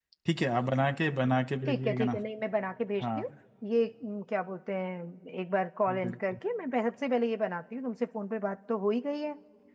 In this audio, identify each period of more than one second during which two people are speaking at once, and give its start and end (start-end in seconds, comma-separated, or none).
none